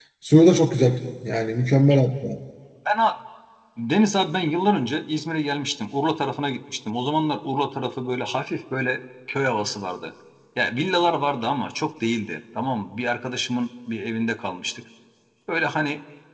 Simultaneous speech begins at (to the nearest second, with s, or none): none